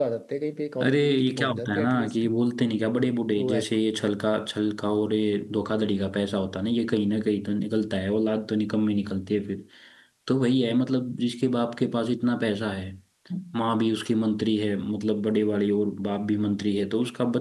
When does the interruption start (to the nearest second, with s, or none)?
1 s